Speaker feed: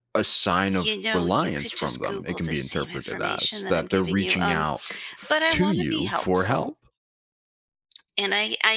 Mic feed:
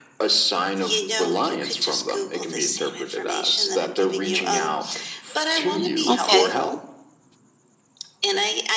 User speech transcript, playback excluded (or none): "Okay."